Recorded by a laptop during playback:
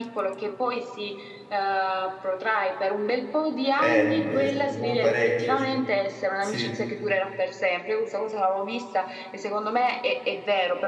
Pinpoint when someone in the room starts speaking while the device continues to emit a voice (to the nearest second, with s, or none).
4 s